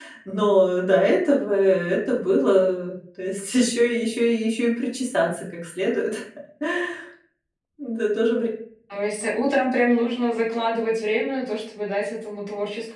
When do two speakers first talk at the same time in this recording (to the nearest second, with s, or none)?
none